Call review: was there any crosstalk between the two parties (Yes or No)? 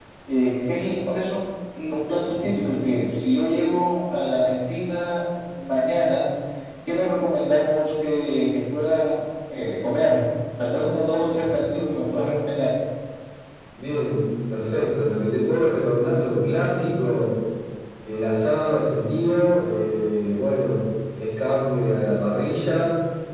No